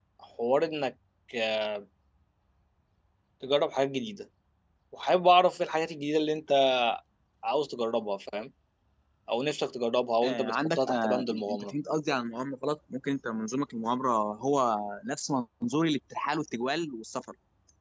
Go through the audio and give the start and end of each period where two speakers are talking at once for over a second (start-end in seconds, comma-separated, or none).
10.2-11.7